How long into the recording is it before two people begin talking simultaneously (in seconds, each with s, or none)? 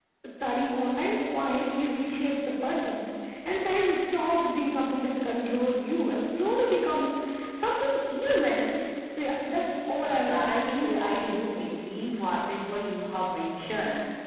10.0 s